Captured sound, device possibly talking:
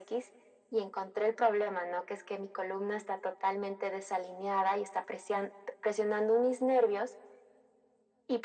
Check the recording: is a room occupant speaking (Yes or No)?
No